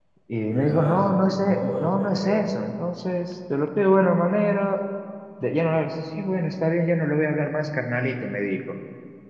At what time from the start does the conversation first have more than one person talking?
0.5 s

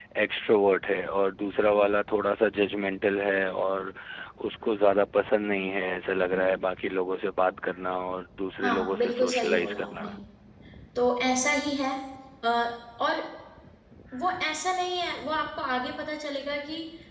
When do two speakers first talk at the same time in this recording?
8.6 s

